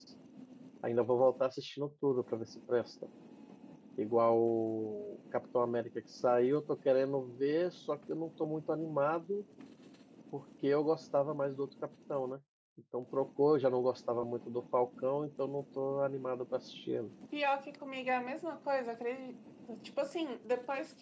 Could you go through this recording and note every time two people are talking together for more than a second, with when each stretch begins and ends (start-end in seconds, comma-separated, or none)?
none